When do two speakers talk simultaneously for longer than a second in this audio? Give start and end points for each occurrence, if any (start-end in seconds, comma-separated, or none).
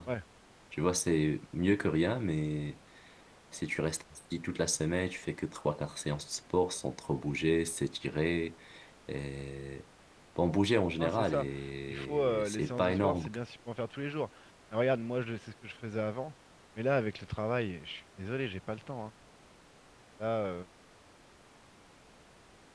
11.9-13.2